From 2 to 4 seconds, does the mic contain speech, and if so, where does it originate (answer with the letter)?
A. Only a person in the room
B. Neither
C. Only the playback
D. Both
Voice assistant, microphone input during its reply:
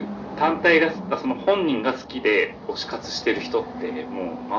C